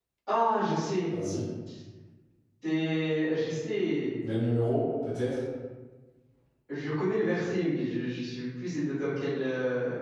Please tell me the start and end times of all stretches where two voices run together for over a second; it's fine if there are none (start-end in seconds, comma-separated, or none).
none